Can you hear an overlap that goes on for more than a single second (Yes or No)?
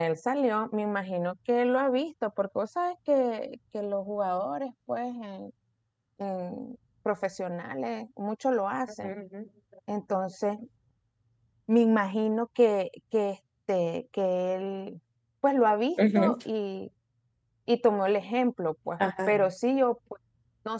No